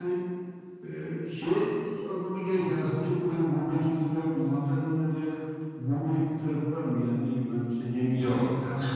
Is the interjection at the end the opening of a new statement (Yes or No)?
No